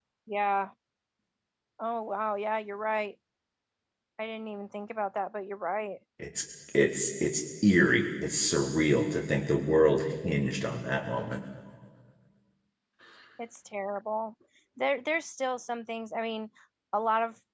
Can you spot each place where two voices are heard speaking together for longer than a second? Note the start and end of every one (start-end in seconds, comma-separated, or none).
none